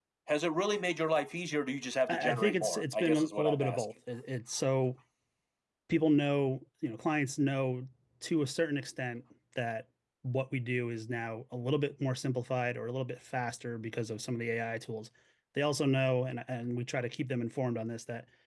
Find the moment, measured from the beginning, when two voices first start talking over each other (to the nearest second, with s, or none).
2 s